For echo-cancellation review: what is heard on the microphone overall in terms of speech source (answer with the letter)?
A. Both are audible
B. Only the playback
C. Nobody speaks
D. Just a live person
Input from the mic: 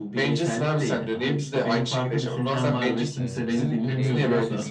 A